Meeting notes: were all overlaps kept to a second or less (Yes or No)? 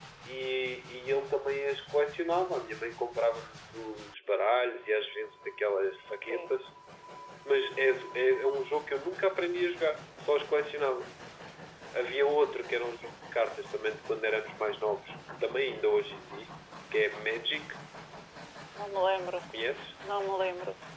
Yes